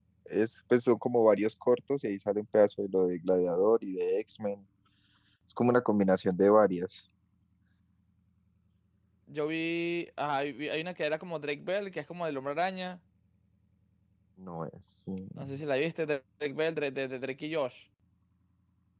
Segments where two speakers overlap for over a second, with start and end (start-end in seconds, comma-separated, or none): none